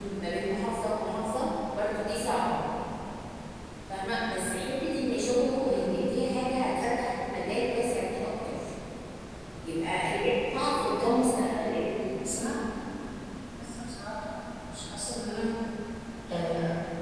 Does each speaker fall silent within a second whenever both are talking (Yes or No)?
Yes